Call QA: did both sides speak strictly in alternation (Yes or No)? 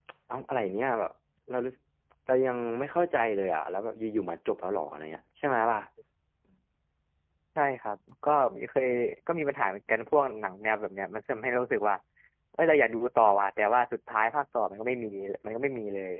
Yes